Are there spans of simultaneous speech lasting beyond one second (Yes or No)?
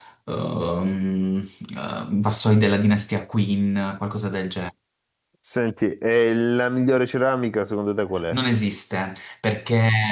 No